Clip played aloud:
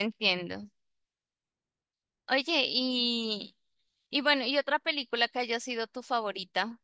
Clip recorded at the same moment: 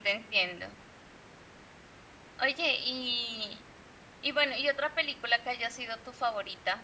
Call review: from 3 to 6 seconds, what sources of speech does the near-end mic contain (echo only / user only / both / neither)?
echo only